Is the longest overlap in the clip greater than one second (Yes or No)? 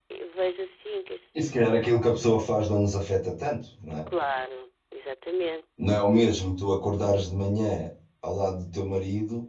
No